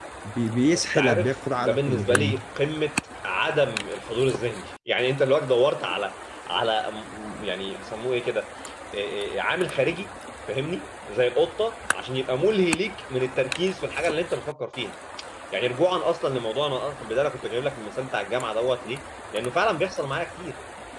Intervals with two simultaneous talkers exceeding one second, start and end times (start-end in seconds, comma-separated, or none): 0.7-2.4